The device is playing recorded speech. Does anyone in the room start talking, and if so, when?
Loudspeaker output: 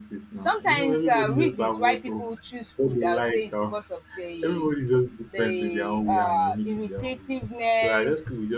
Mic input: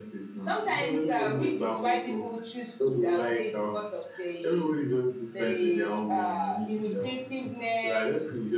none

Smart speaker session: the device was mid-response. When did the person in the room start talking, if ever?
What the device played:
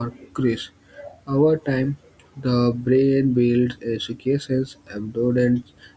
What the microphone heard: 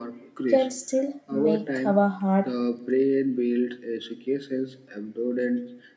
0 s

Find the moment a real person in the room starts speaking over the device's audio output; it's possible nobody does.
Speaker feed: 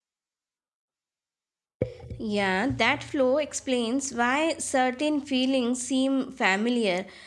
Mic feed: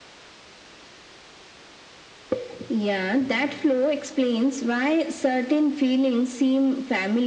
none

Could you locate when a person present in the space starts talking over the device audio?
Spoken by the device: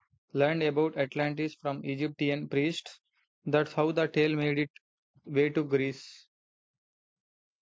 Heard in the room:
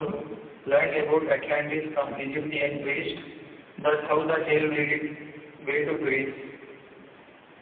none

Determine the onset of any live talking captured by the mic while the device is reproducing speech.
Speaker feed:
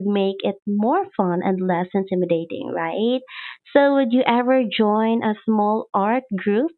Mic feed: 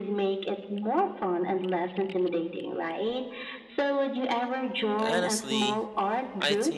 5 s

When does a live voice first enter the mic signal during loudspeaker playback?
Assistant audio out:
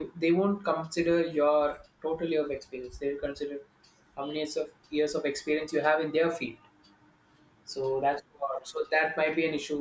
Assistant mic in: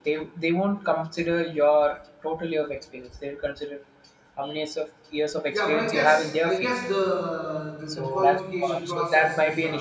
5 s

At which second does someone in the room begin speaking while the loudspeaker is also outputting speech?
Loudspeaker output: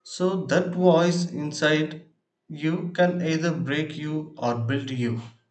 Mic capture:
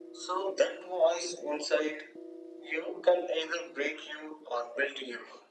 none

